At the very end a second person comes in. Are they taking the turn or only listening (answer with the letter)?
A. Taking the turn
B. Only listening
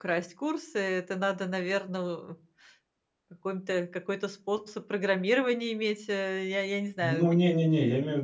A